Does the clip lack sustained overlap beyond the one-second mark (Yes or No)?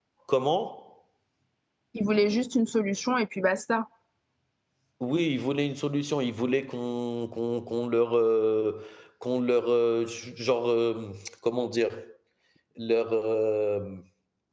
Yes